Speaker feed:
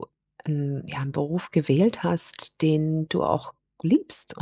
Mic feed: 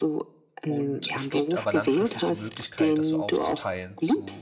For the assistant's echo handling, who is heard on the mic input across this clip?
both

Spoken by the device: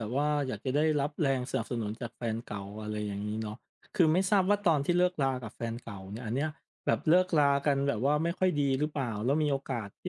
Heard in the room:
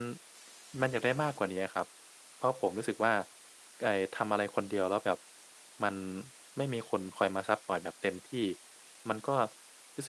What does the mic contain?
user only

